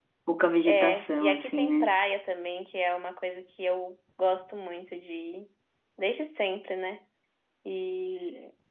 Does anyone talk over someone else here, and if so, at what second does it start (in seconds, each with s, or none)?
0.6 s